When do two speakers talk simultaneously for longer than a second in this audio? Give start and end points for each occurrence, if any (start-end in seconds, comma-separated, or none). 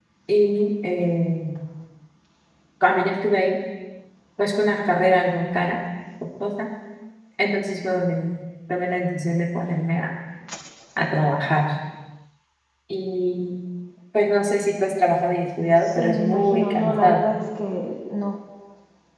16.0-17.3